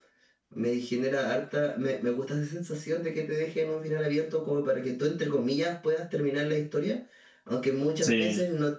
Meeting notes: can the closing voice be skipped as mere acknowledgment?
Yes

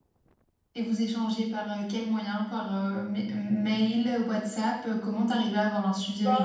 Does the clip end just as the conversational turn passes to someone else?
Yes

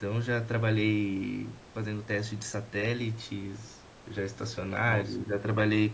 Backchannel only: Yes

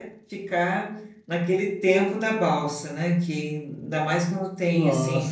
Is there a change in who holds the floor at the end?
Yes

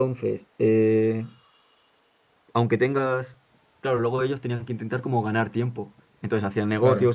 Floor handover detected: No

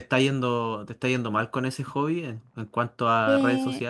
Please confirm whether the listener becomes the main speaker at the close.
Yes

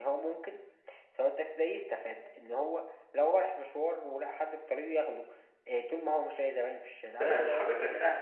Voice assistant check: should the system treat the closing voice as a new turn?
Yes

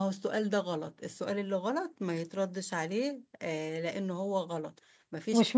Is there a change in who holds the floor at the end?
Yes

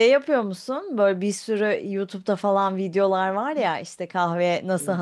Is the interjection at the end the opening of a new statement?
No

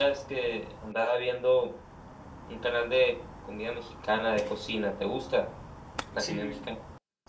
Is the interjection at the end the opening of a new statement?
Yes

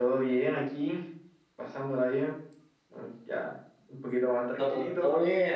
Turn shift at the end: Yes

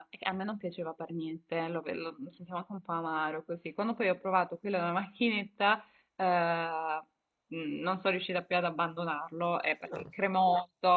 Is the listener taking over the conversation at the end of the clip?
No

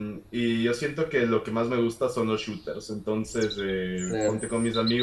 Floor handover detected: No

